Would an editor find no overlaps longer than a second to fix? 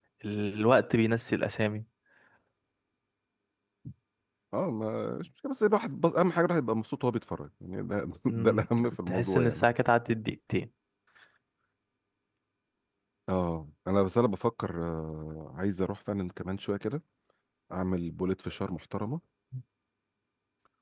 Yes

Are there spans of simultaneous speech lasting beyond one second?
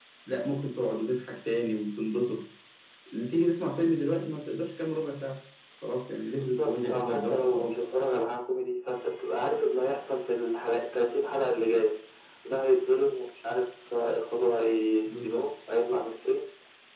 Yes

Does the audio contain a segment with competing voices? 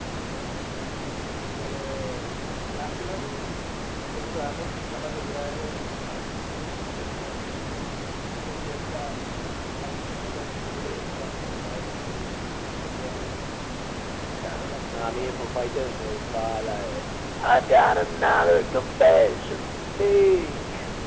Yes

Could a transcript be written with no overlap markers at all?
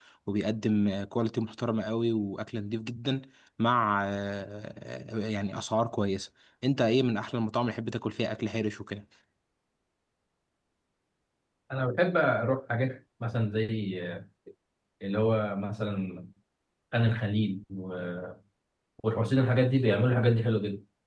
Yes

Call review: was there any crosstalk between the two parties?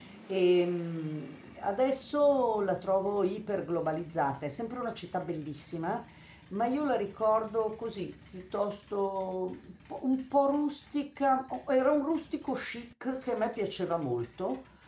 No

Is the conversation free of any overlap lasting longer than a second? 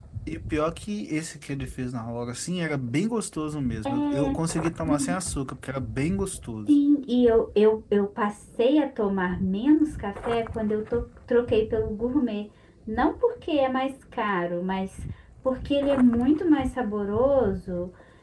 Yes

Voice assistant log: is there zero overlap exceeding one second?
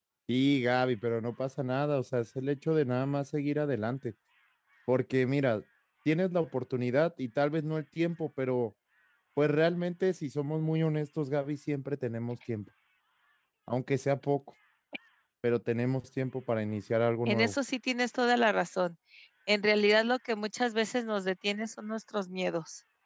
Yes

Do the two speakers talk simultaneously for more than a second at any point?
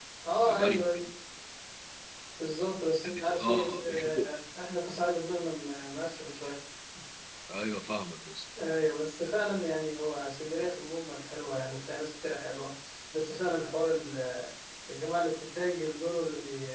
Yes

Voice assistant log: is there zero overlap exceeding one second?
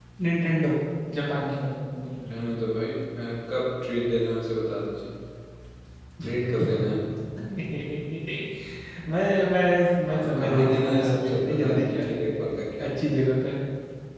No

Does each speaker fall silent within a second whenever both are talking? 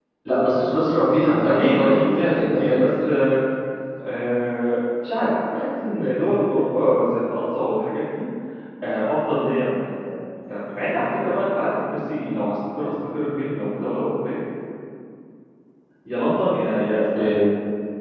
No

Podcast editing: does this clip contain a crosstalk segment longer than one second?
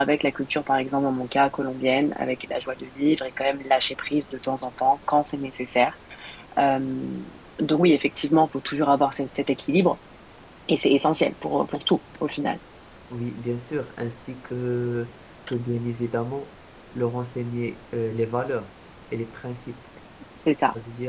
No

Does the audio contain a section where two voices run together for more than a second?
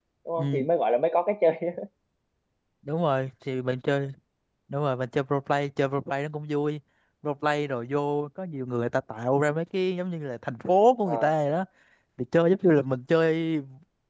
No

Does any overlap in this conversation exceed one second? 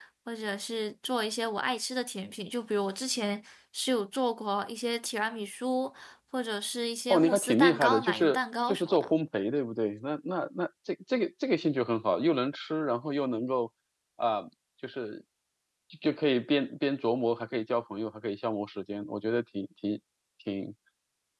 Yes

